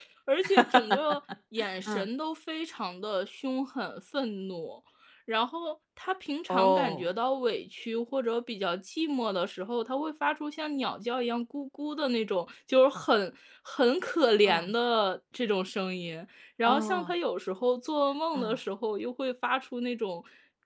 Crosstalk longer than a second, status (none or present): none